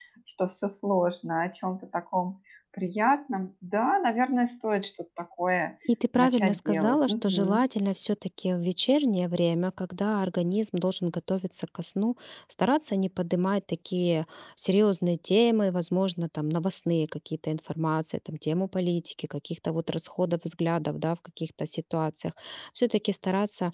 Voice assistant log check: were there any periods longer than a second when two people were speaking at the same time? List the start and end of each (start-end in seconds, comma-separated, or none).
6.2-7.6